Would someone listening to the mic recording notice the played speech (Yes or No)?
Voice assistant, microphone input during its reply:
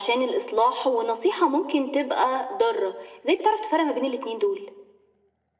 Yes